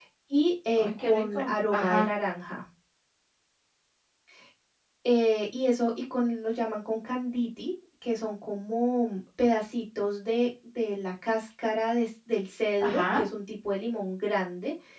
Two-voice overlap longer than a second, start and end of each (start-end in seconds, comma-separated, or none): 0.8-2.1